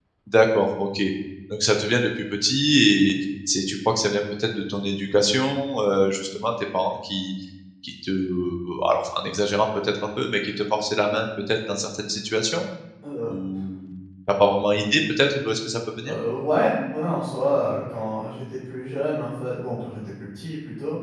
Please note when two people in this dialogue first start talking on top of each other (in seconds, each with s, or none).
none